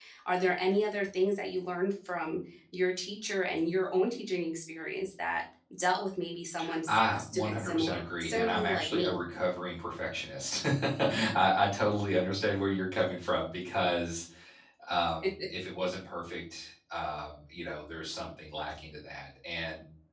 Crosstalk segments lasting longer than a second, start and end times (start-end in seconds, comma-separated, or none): 6.9-9.2